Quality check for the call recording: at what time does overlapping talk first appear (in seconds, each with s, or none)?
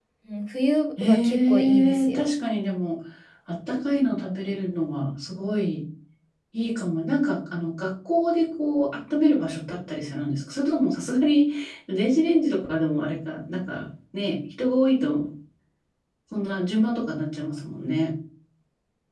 1.0 s